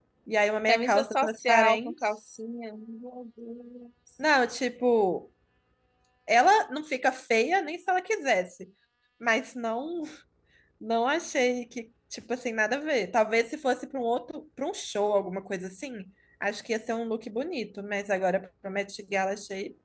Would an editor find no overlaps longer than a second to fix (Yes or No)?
No